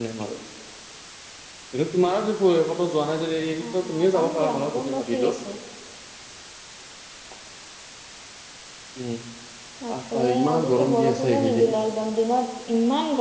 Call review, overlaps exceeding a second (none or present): present